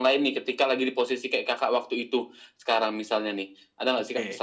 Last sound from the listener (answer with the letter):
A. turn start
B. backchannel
A